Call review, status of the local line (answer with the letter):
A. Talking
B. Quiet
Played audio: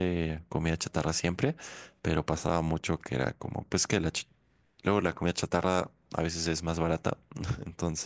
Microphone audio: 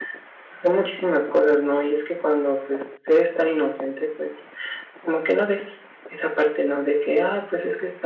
A